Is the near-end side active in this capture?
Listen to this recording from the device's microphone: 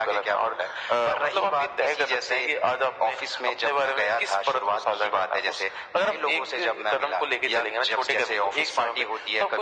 No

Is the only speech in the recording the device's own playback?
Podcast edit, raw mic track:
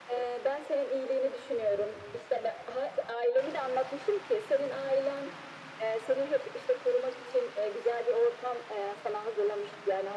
Yes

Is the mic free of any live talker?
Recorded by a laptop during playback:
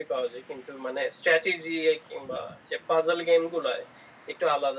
Yes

